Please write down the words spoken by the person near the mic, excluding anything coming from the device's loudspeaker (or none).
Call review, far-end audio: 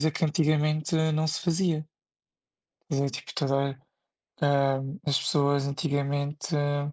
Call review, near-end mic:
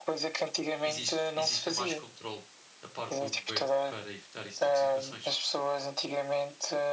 existe, exista mais controle da parte do governo para evitar esse tipo de situações?